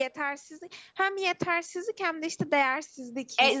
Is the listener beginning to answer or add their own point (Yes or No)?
Yes